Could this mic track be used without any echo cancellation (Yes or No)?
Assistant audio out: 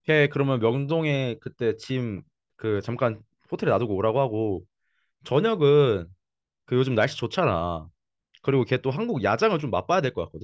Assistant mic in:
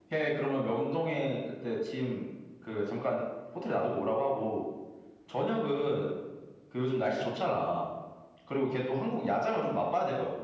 No